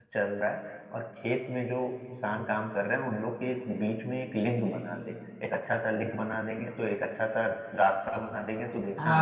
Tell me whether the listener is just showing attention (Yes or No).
No